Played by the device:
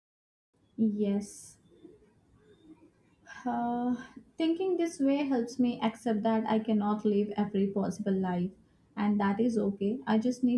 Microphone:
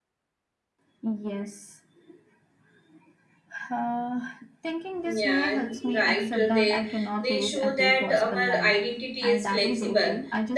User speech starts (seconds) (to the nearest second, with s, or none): 5 s